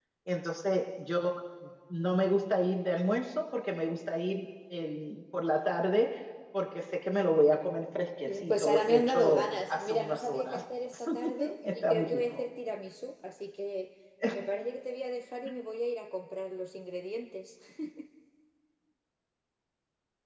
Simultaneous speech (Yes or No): Yes